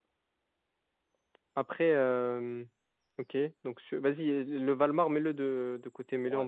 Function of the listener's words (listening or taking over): listening